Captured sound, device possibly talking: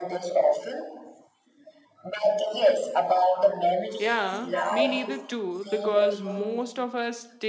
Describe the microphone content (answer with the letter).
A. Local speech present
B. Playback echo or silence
A